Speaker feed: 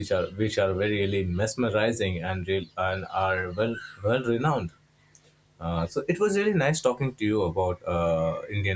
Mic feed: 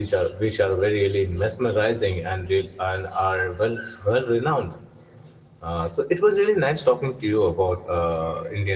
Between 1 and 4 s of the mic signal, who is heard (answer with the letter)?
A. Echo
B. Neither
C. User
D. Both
A